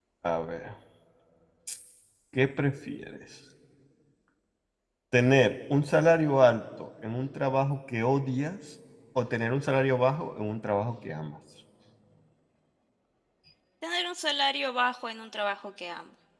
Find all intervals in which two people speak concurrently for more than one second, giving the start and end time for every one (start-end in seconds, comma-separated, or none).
none